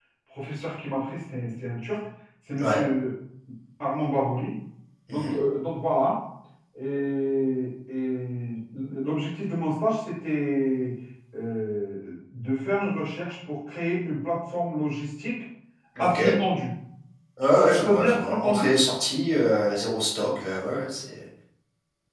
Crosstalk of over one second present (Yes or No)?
Yes